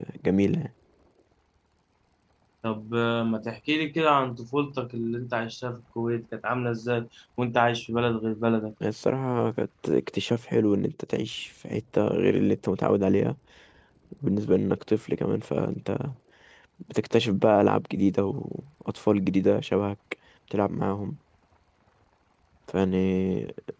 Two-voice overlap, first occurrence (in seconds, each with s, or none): none